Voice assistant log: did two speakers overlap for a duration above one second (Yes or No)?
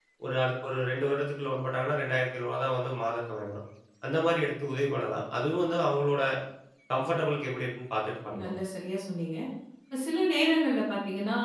No